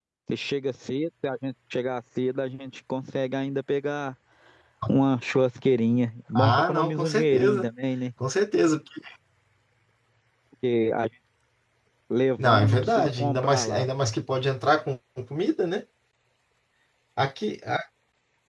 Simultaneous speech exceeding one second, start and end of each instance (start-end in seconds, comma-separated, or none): 6.3-7.7, 12.4-13.8